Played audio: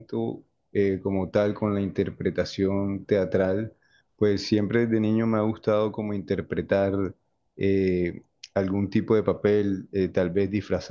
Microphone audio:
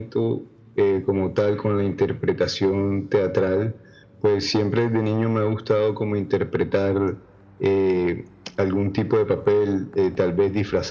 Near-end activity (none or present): none